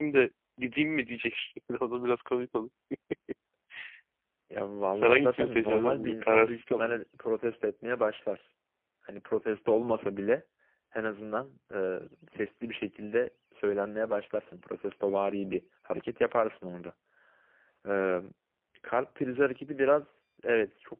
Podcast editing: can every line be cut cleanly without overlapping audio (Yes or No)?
No